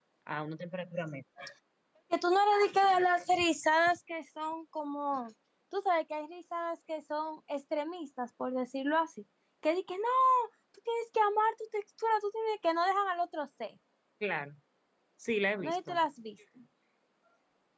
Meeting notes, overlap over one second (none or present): none